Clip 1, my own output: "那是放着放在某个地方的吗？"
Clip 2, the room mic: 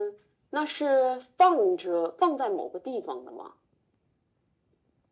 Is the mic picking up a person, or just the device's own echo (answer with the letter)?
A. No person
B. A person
A